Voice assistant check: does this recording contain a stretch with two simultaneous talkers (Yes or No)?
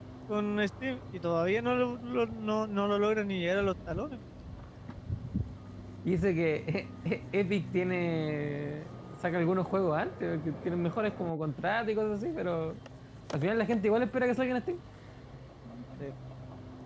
No